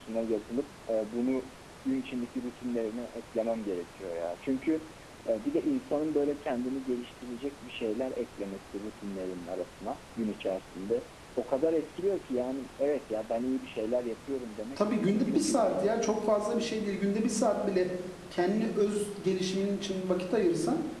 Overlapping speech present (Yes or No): Yes